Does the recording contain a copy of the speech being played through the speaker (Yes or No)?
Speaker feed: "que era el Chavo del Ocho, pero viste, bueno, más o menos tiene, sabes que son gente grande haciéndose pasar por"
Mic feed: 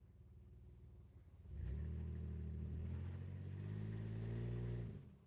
No